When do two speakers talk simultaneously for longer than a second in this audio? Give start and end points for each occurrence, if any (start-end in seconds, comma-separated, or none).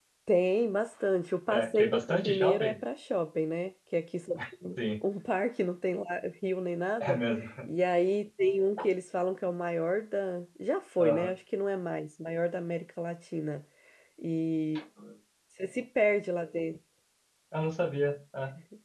1.5-2.7